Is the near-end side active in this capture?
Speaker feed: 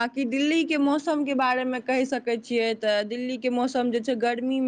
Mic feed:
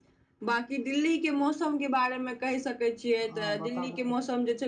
Yes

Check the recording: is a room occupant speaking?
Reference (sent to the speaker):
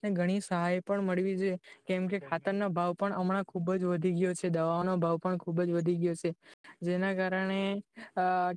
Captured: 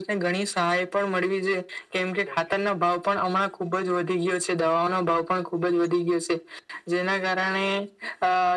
No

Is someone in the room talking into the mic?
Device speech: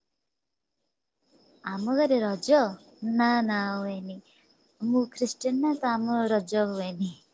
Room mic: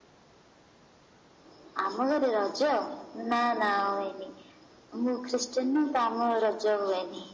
No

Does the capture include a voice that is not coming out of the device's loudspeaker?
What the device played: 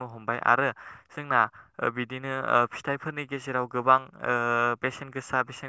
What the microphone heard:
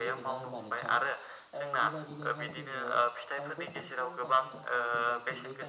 Yes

